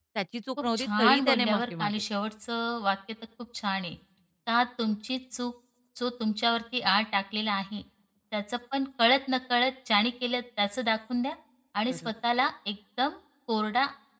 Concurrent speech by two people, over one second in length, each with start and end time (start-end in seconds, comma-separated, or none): 0.8-2.0